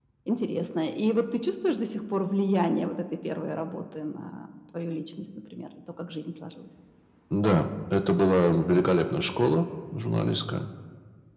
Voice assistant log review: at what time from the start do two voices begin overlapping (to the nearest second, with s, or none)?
none